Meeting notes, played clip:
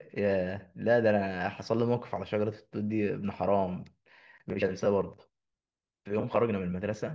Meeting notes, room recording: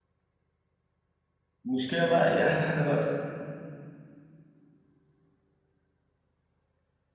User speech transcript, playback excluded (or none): المشكله بقى ايه احلى حاجه بقى في